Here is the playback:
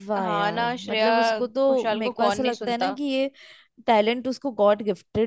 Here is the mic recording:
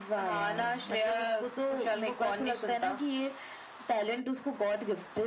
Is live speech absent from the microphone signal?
Yes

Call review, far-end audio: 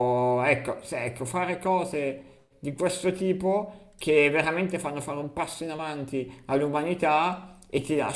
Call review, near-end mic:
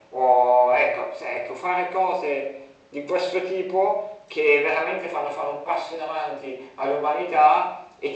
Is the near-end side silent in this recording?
Yes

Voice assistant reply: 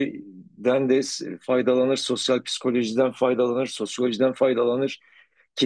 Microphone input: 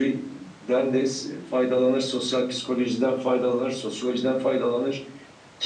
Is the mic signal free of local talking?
Yes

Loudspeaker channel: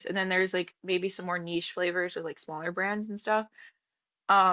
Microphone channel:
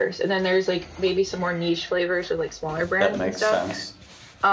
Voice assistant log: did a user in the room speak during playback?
Yes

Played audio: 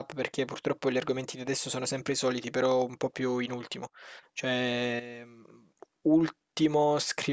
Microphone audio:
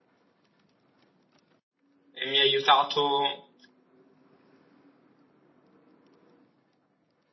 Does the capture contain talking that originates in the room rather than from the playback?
Yes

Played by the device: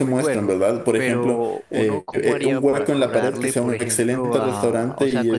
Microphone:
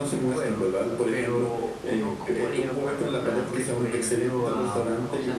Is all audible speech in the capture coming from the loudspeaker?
Yes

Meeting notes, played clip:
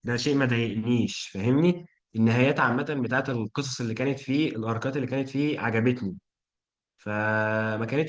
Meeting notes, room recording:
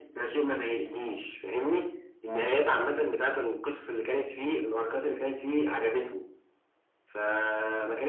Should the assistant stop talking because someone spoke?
No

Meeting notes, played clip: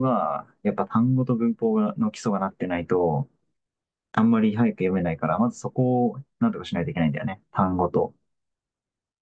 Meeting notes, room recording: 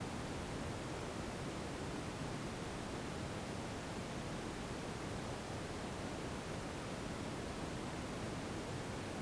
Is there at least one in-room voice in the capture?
No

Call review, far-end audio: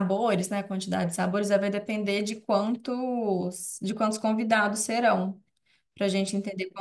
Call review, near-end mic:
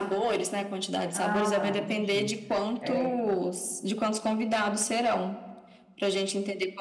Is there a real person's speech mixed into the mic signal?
Yes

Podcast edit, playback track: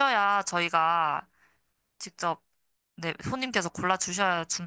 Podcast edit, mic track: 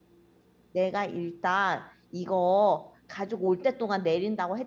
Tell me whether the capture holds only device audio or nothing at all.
No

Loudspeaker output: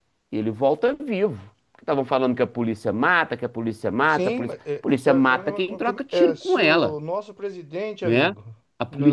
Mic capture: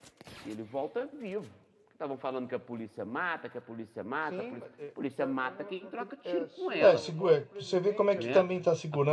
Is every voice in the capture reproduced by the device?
No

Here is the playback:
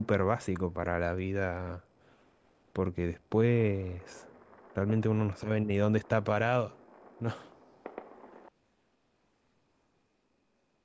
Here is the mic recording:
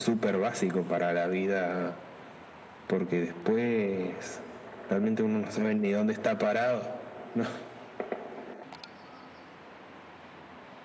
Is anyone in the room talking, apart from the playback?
No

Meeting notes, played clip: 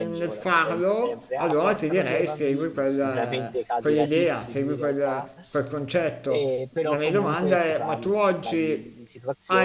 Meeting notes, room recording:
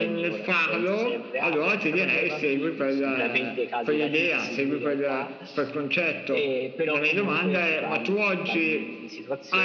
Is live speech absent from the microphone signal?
Yes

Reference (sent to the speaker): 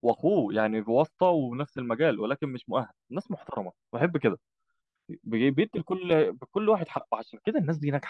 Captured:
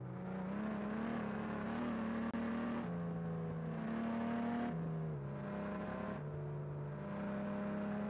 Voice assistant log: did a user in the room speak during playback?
No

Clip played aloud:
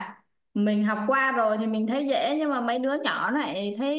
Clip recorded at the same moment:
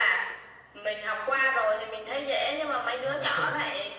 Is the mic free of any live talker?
No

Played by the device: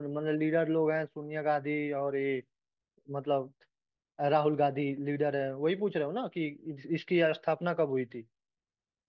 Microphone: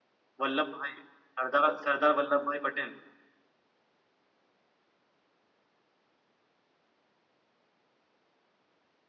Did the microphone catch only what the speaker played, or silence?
No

